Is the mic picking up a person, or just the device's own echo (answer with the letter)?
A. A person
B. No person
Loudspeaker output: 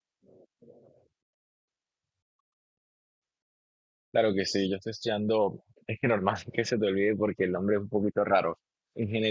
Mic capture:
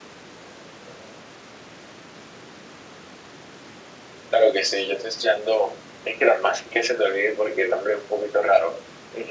B